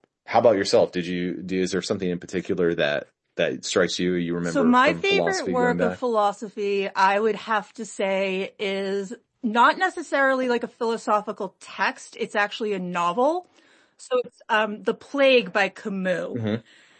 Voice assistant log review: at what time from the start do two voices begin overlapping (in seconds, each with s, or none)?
4.4 s